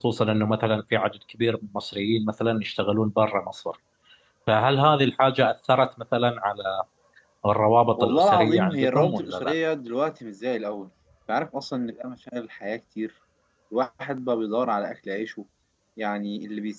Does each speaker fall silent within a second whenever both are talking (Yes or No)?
No